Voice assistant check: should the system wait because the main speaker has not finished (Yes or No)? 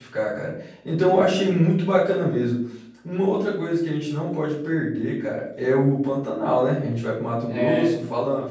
Yes